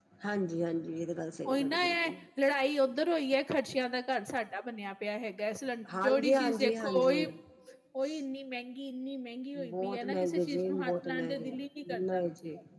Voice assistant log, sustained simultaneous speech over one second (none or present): present